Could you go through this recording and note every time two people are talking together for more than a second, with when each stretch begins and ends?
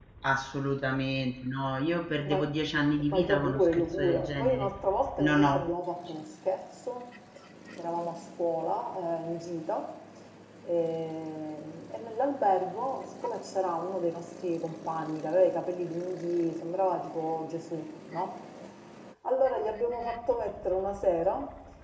3.1-4.7

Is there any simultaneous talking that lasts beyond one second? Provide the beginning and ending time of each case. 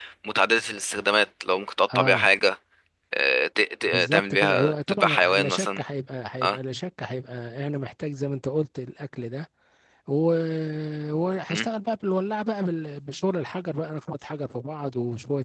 3.9-5.8

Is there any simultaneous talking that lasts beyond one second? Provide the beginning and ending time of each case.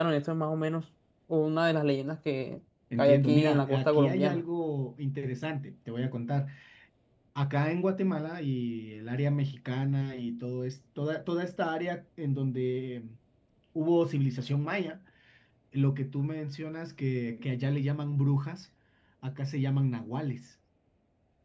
3.0-4.4

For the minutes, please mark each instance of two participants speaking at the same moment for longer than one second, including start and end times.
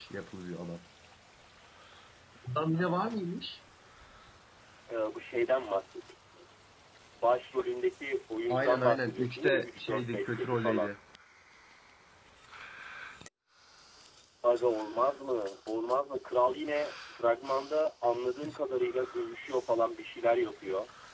8.5-10.9

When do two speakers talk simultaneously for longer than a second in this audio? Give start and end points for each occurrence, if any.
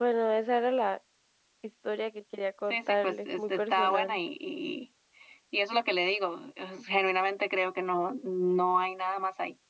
2.7-4.2

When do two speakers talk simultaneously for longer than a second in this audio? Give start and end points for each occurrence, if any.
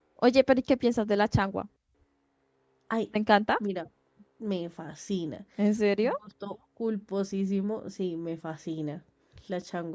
none

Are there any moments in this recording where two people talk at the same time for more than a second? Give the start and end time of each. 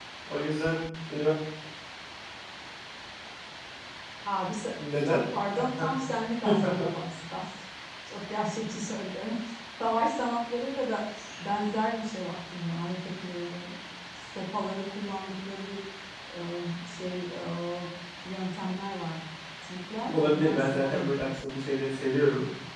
20.1-21.3

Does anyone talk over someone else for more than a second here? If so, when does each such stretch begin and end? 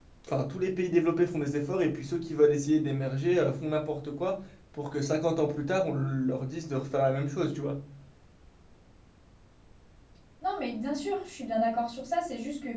none

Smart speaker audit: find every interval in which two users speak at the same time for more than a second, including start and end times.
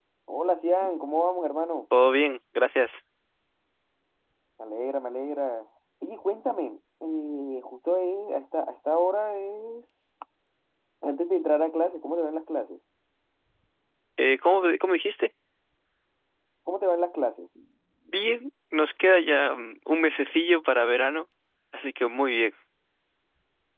none

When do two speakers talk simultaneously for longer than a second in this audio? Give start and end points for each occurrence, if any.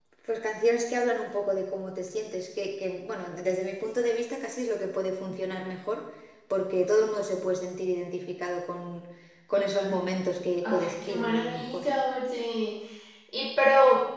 10.6-11.8

